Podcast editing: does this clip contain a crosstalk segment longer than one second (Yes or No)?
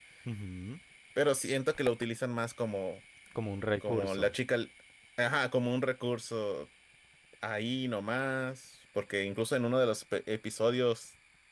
No